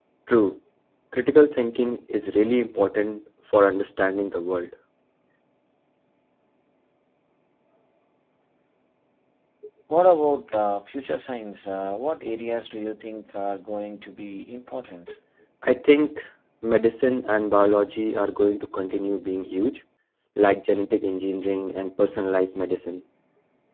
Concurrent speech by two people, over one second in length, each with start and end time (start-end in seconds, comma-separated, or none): none